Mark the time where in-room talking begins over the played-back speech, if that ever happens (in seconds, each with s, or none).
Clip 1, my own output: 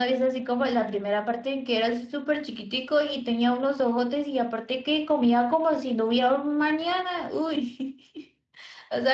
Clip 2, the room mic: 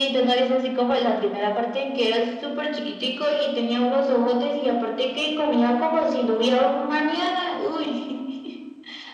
none